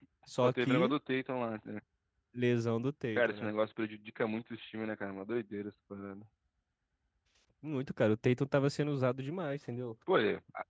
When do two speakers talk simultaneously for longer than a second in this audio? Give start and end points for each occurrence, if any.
none

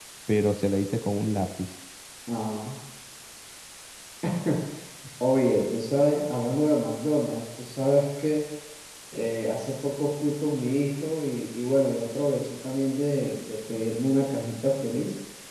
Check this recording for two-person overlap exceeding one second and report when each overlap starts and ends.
none

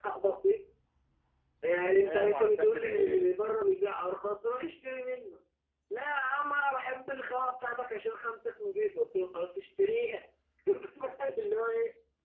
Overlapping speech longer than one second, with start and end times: 1.8-3.3

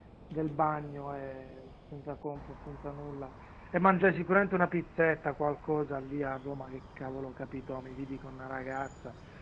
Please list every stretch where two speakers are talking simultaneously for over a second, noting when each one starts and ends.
none

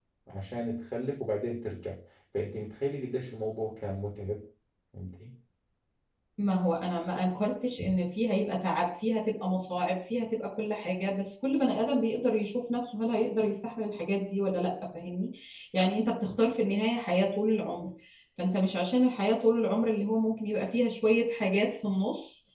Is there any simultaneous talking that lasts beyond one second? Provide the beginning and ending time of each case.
none

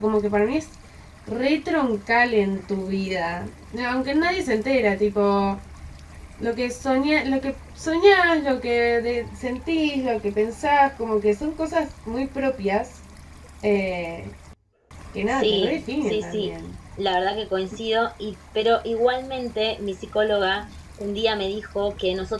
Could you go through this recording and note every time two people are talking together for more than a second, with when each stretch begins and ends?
15.3-16.5

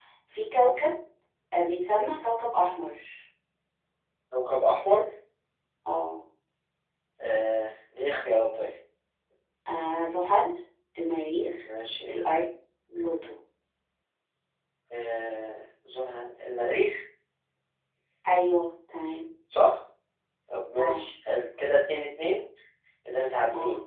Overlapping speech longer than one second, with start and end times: none

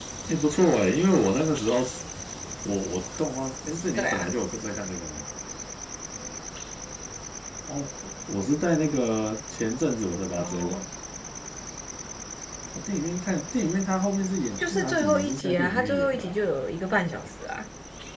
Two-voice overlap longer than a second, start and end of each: 14.6-16.4

